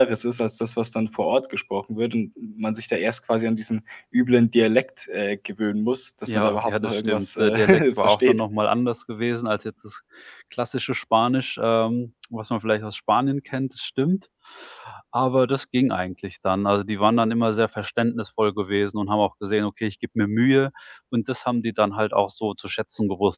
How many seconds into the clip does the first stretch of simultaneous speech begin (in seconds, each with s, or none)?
6.3 s